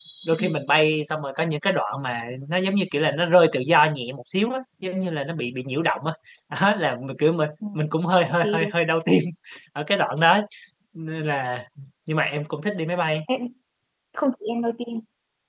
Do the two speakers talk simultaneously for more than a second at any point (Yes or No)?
No